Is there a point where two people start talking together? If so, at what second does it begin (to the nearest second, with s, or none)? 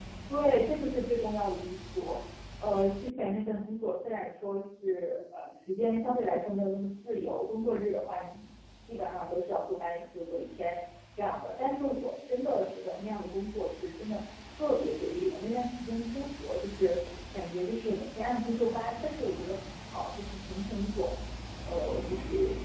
none